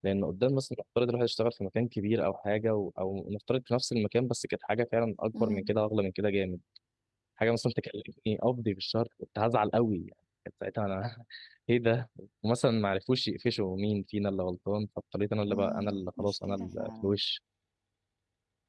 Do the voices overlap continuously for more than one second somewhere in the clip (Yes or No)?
Yes